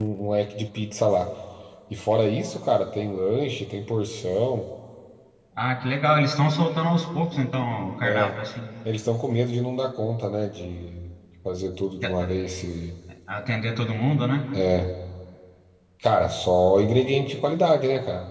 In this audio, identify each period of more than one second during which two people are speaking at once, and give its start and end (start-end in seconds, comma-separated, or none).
none